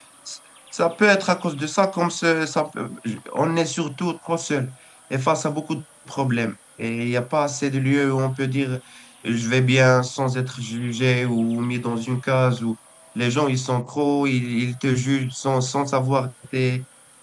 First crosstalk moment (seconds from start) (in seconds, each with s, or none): none